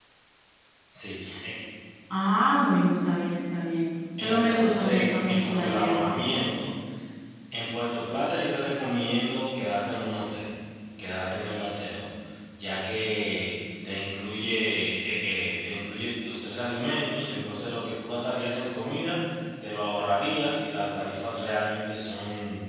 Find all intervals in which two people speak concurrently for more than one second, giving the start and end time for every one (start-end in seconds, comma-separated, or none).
4.2-6.2